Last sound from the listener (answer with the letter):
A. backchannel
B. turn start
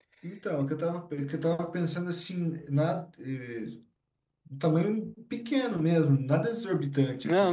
B